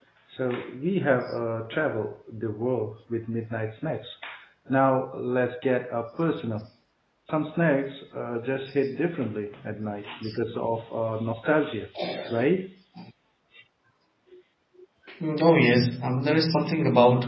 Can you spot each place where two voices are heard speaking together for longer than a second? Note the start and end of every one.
none

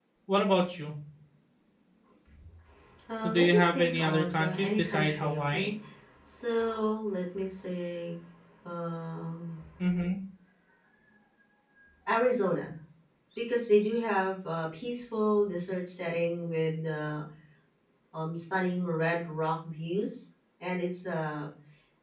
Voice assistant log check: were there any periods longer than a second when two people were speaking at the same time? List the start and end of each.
3.2-5.7

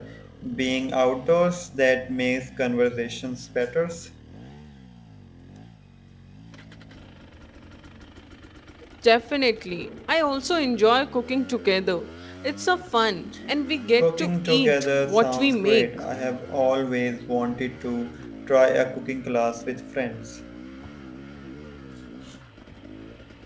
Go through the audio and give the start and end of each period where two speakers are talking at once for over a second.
14.0-15.9

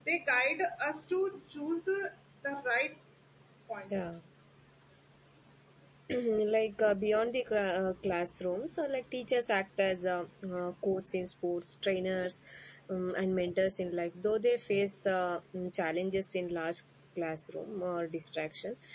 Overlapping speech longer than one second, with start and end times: none

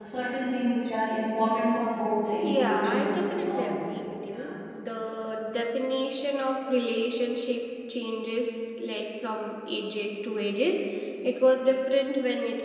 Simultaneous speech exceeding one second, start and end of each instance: 2.4-3.7

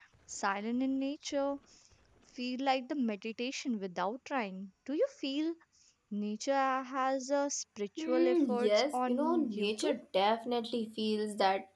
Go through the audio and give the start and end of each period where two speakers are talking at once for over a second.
8.0-9.9

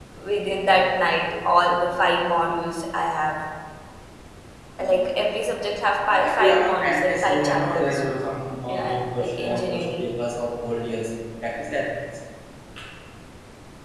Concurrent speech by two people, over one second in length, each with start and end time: 6.2-8.0, 8.7-10.0

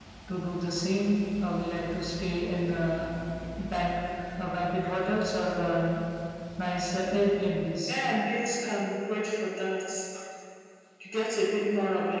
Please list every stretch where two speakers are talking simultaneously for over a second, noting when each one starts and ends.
none

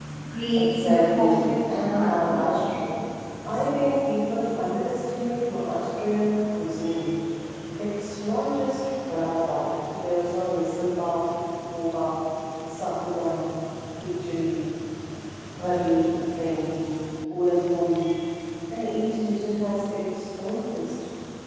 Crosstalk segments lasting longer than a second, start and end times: 0.6-2.5

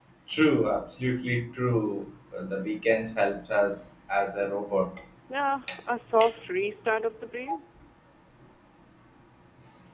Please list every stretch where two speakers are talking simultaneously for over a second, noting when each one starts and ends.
none

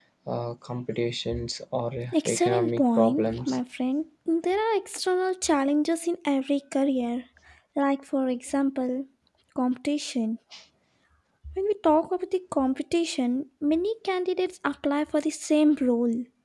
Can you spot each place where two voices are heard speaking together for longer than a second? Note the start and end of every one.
2.1-3.6

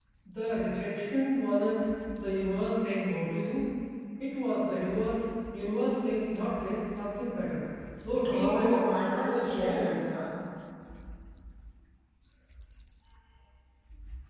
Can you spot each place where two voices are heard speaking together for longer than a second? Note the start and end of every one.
8.3-10.0

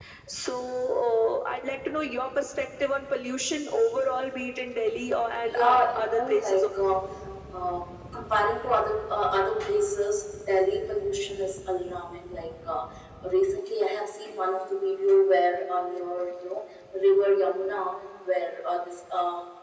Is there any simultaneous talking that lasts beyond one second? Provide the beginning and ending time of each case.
5.4-6.6

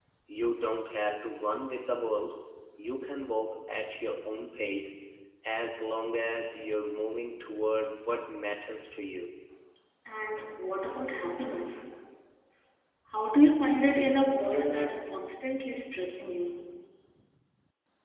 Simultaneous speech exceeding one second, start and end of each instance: none

